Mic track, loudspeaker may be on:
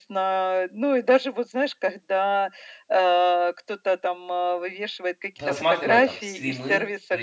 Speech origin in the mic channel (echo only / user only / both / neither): both